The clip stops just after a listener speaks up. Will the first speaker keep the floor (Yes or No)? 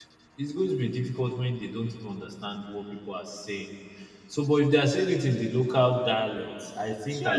No